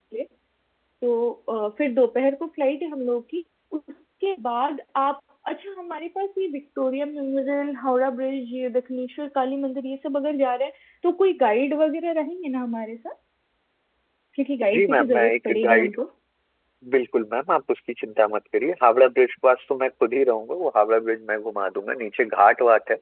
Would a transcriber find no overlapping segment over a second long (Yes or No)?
No